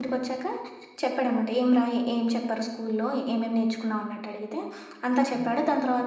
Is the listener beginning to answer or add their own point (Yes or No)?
No